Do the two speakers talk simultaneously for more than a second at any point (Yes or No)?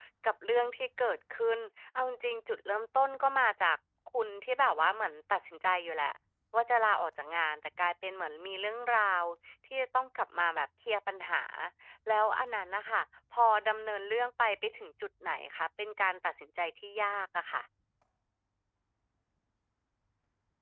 No